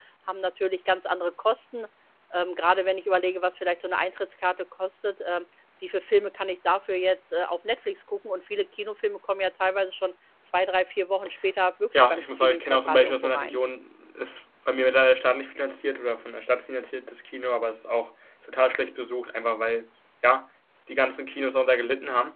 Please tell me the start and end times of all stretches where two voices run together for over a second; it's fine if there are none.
12.1-13.6

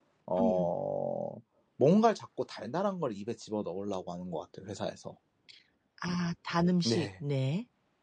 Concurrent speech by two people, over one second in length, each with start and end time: none

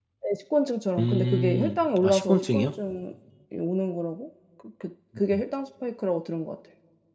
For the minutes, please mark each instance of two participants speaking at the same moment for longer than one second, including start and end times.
1.0-2.7

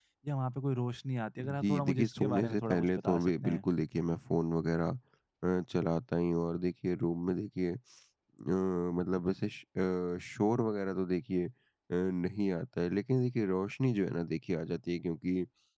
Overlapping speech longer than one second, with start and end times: 1.6-3.7

